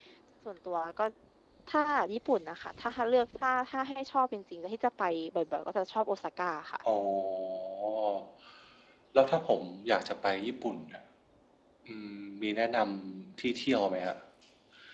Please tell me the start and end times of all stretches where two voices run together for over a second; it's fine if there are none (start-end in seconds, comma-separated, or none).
none